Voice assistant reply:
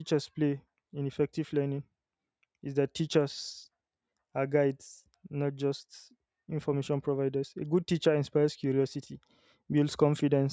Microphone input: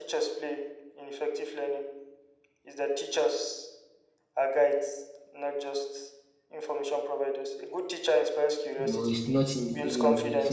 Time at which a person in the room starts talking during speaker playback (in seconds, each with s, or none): 8.8 s